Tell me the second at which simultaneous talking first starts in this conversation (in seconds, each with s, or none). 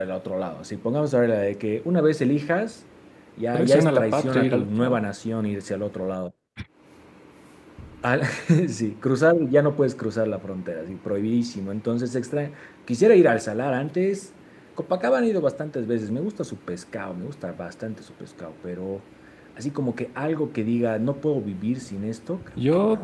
3.5 s